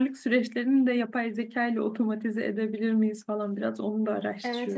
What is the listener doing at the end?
taking over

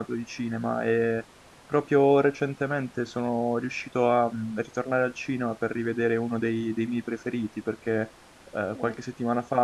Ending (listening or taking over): listening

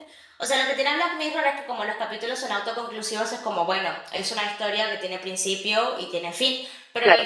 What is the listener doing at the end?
listening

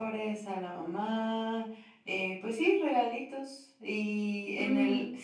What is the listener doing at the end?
listening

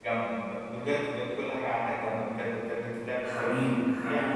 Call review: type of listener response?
taking over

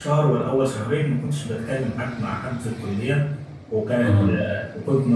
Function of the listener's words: listening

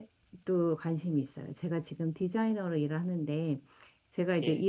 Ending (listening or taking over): listening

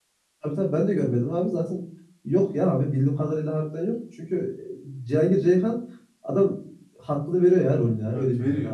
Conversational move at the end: taking over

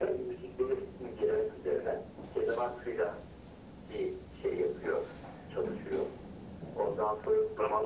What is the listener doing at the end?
taking over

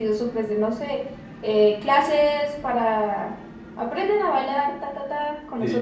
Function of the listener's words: taking over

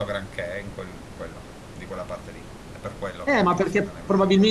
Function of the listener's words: taking over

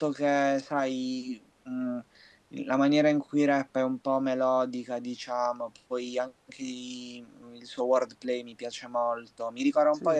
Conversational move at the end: listening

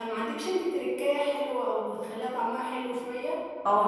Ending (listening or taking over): taking over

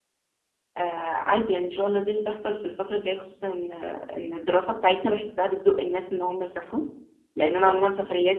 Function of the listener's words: listening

